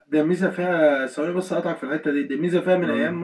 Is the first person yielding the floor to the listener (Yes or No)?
No